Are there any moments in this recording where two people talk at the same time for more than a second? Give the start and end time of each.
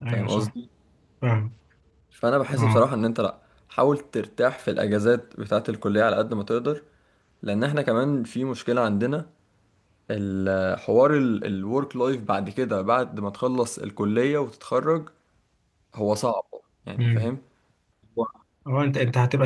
none

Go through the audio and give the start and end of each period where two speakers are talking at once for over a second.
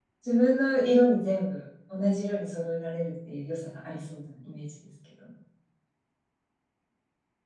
none

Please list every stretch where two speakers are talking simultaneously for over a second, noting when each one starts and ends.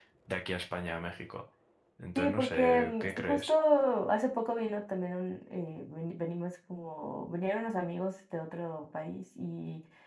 2.2-3.5

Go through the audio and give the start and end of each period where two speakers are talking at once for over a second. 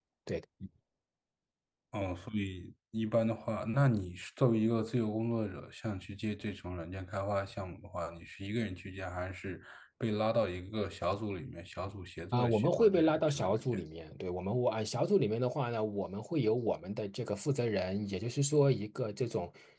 12.3-13.6

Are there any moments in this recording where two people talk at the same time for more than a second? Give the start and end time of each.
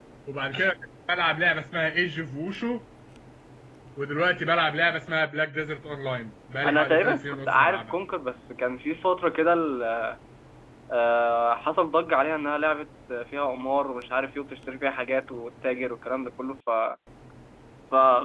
6.7-8.0

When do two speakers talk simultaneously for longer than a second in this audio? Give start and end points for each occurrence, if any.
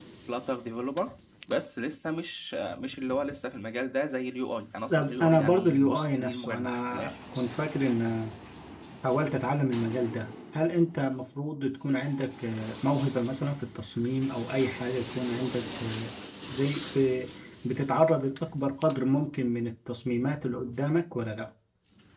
4.9-7.2

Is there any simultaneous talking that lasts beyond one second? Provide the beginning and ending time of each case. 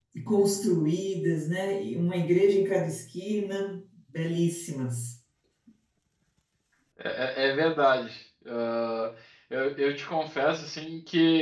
none

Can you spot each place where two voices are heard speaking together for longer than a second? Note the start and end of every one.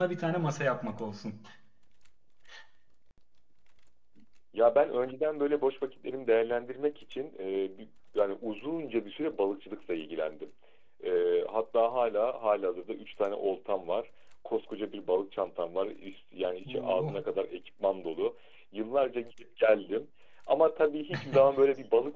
none

